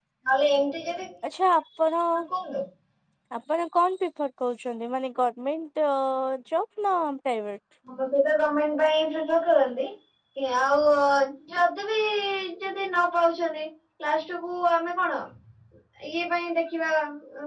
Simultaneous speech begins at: none

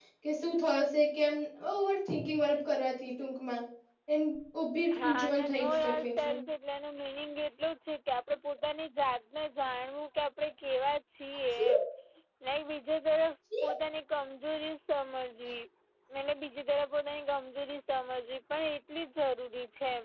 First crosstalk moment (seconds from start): 5.0 s

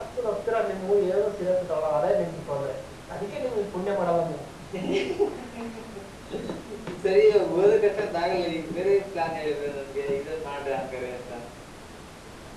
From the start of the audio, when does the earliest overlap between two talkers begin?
none

